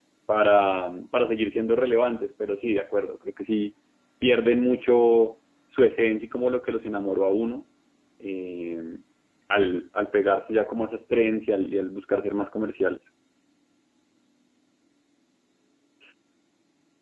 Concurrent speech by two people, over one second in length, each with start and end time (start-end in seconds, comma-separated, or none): none